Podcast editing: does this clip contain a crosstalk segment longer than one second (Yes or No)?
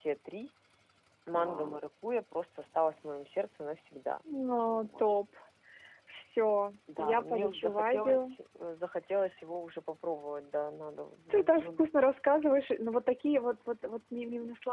Yes